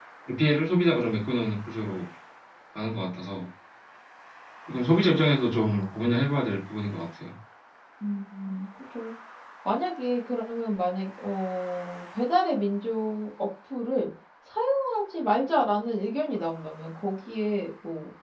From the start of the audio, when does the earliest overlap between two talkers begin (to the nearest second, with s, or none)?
none